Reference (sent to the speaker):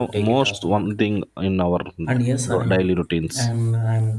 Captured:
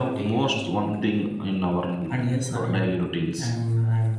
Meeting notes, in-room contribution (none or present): none